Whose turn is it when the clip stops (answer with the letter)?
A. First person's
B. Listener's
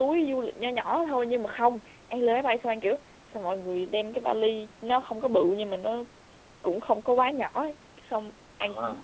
A